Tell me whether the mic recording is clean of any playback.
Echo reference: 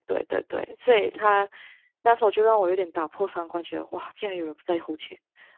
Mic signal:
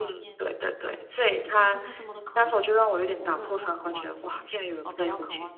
No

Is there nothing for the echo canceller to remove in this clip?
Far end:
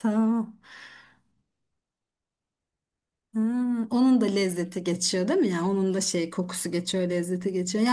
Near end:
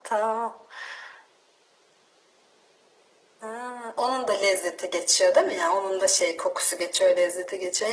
No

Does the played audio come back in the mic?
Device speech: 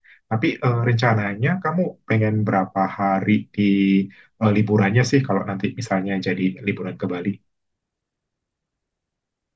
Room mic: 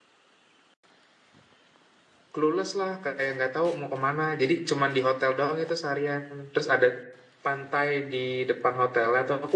No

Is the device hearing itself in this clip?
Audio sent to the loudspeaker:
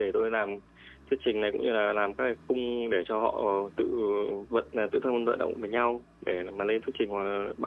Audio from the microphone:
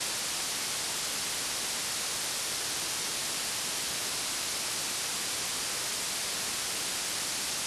No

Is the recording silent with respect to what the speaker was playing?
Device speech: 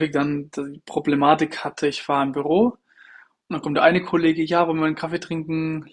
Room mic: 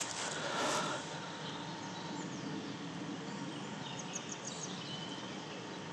Yes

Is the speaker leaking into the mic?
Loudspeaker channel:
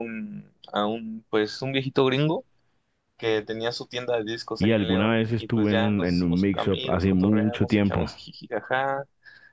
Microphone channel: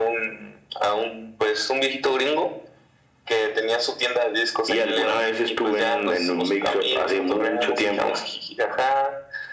Yes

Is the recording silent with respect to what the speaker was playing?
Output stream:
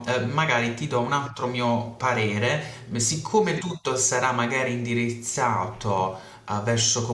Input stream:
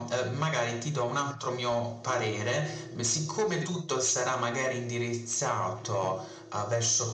No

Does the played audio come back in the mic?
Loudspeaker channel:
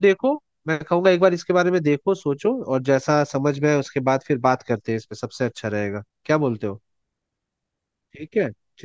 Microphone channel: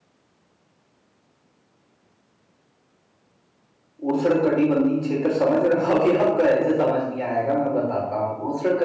No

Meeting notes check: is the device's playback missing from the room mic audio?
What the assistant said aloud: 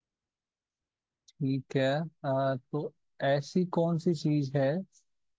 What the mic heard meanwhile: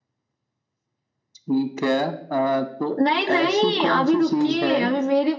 No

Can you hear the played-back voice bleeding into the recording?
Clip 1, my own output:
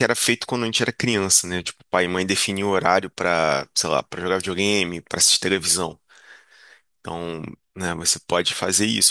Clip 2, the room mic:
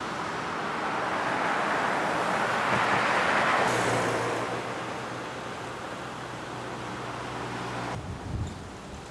No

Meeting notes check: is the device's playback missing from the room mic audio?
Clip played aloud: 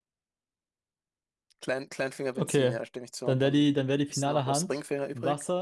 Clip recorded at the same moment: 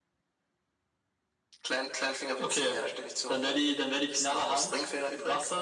No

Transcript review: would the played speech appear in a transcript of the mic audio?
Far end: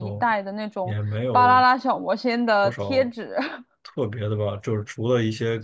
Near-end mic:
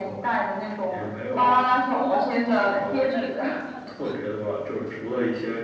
Yes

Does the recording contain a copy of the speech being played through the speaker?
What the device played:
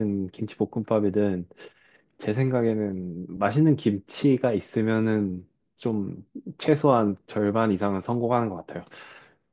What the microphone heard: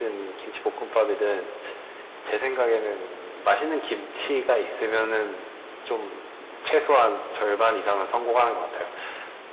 Yes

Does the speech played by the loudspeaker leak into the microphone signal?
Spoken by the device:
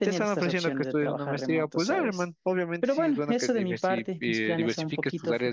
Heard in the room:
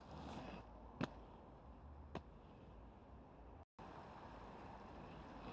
No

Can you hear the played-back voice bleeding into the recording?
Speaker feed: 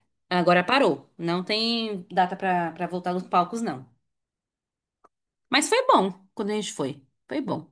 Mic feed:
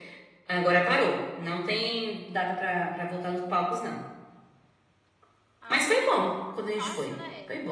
Yes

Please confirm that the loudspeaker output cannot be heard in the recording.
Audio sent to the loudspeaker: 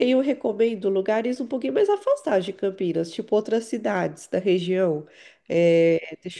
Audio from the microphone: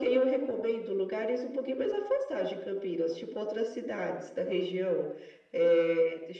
No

